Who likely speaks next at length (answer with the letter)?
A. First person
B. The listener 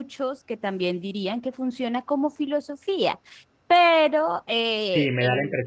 B